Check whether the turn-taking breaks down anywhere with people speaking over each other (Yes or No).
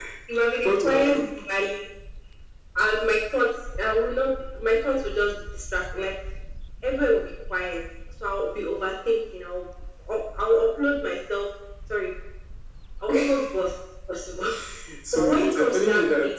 Yes